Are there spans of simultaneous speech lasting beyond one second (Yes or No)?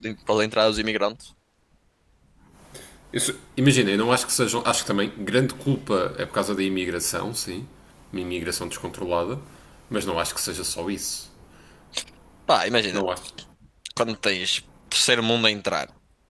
No